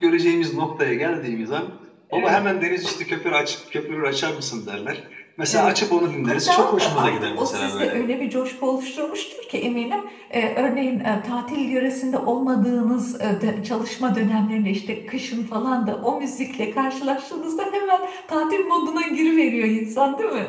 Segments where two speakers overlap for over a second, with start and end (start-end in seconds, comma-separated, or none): 6.2-8.0